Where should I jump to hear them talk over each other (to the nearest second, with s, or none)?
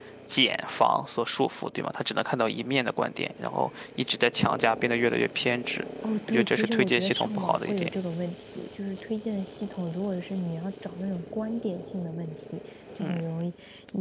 6 s